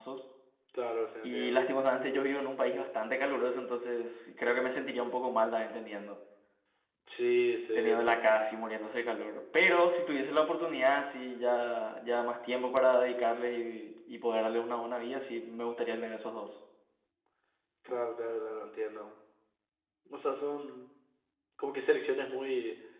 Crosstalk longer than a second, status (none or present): none